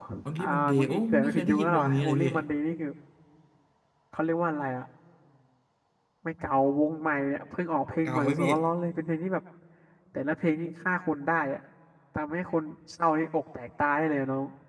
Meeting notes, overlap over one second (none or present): present